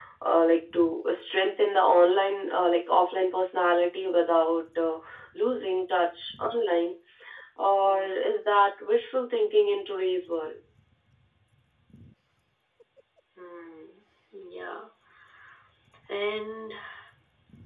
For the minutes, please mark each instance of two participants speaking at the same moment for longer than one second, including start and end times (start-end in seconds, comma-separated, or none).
none